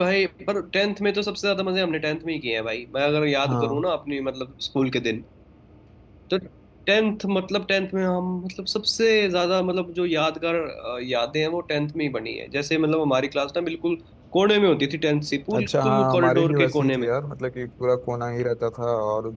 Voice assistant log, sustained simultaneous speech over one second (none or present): present